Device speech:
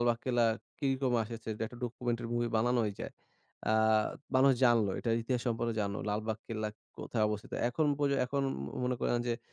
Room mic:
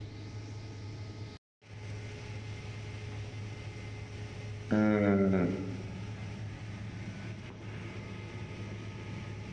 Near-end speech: present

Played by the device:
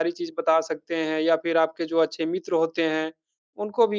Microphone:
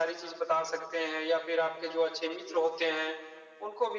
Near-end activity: none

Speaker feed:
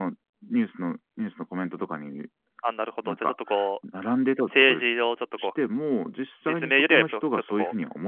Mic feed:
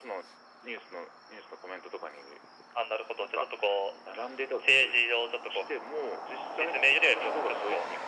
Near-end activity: none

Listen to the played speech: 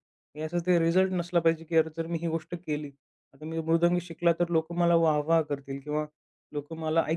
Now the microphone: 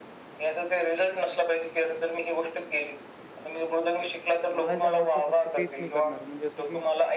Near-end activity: present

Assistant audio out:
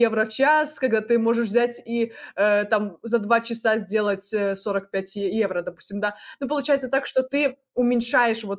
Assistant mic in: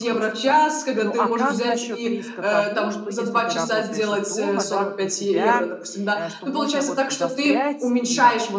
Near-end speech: present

